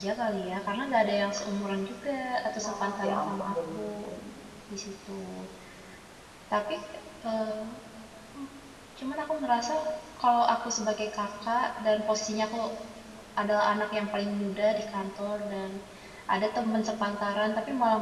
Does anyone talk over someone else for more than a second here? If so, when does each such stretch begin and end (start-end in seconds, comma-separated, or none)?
2.6-3.9